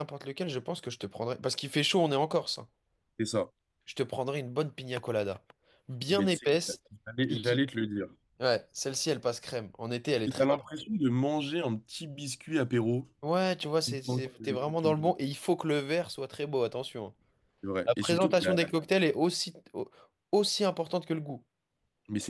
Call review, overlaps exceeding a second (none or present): present